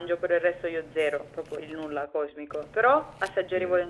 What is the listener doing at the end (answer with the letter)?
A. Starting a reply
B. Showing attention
B